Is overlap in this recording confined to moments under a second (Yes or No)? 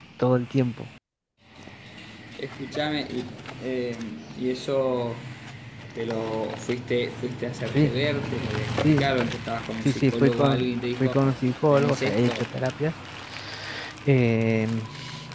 No